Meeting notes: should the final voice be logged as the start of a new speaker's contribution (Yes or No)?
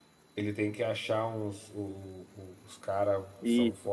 No